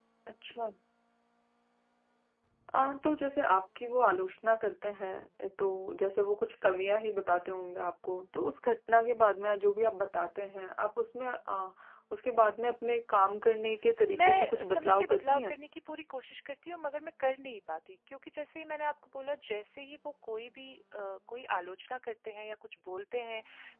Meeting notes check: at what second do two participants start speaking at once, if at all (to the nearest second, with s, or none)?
14 s